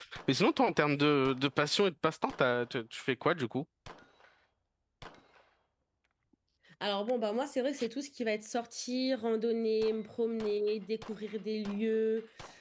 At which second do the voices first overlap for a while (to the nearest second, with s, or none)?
none